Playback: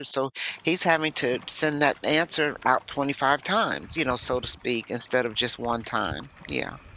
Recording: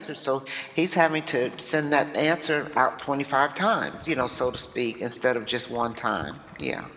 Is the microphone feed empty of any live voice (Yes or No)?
Yes